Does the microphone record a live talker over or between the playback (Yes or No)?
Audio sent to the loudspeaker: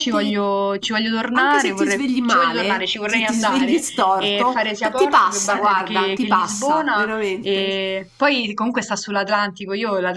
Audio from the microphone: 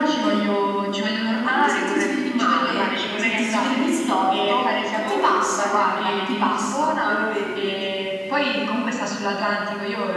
No